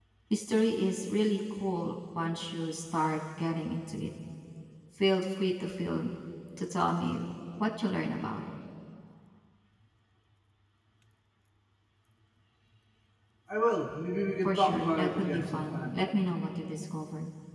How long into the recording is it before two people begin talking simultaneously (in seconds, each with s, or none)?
14.4 s